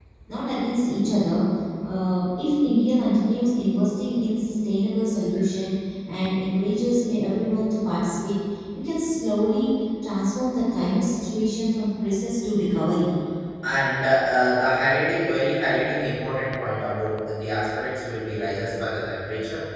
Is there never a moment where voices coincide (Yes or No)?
Yes